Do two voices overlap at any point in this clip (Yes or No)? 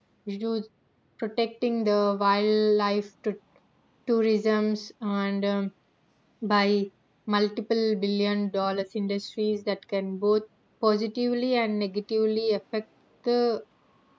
No